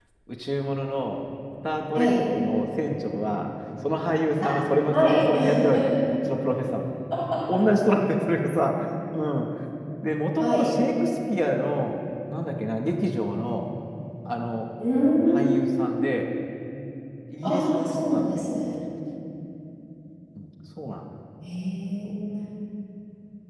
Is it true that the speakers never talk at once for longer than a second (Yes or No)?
No